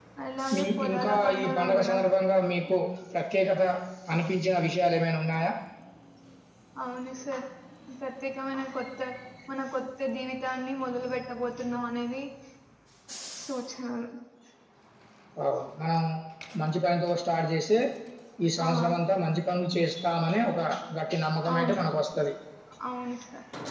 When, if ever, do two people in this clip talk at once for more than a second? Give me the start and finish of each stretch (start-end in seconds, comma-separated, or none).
0.5-1.9